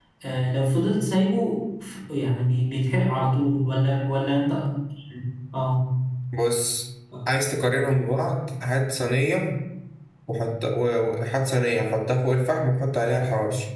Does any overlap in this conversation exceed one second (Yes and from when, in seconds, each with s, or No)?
No